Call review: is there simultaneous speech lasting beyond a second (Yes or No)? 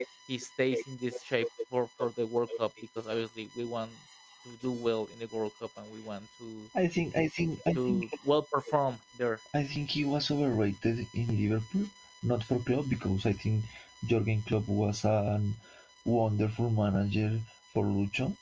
No